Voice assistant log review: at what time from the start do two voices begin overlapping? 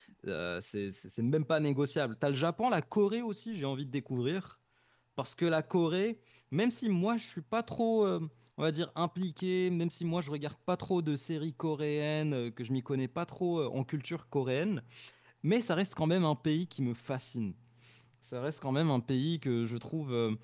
none

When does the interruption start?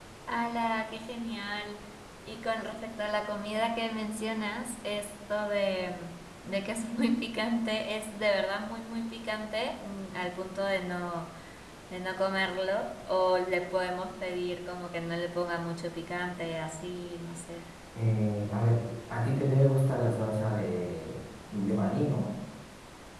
none

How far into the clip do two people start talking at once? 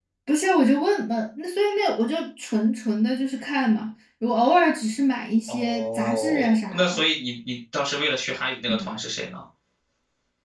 5.5 s

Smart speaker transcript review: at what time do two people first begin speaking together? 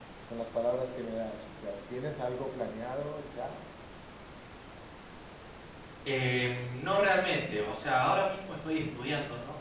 none

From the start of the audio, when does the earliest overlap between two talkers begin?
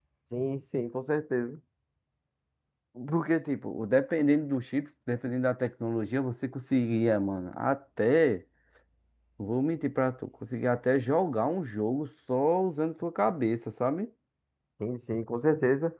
none

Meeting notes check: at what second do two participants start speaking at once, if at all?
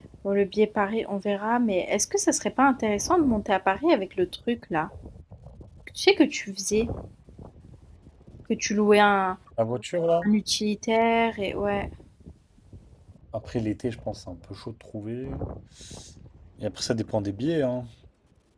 none

